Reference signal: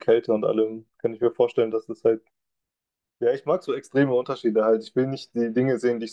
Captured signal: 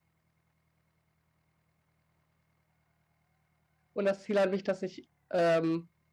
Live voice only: und das Ziel an mich, dass ich ähm,

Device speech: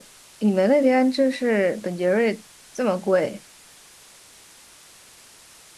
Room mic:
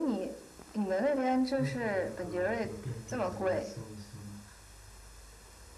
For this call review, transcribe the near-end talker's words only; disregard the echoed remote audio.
附近的那个什么便利店之类的搜一搜嘛，

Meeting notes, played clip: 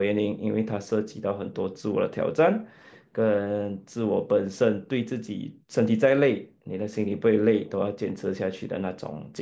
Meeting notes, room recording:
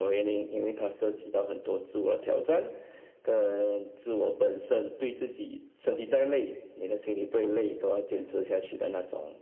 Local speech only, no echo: none

